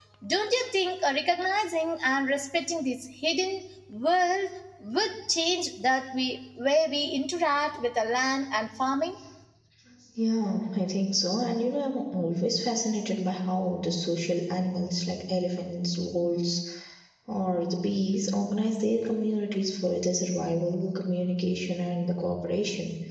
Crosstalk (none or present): none